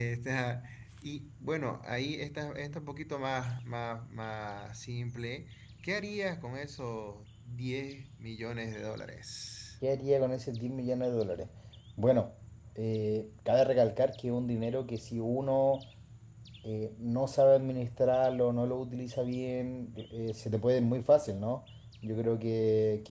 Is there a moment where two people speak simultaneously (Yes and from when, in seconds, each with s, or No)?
No